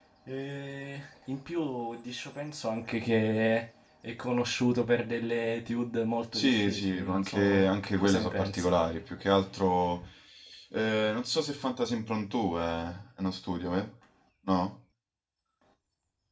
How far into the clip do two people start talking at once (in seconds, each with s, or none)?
6.3 s